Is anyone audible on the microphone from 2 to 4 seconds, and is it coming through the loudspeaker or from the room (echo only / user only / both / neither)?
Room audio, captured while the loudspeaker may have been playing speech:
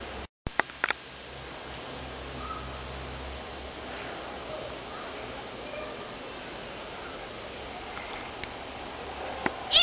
neither